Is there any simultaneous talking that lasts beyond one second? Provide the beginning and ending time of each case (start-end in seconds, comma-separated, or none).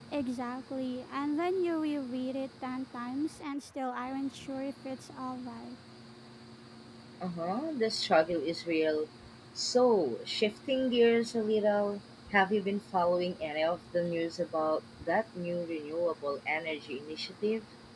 none